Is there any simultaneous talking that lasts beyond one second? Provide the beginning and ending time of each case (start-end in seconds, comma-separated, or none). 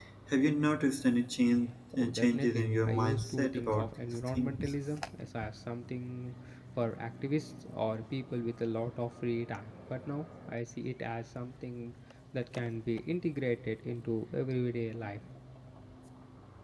2.0-4.6